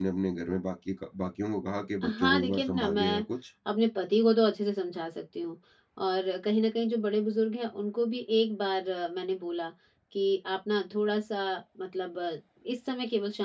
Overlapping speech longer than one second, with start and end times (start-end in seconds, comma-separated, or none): 2.0-3.2